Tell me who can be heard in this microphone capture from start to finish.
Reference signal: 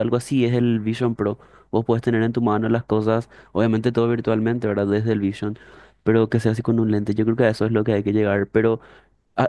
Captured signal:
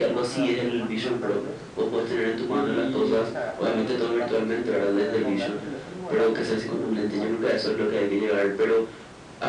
both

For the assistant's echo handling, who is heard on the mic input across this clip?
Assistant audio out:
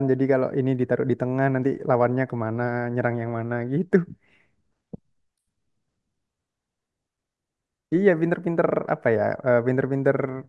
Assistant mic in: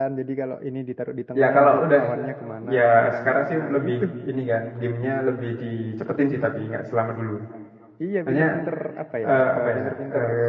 both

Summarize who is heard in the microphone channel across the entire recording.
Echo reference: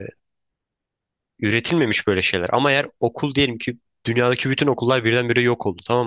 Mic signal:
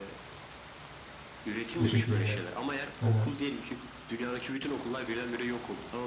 both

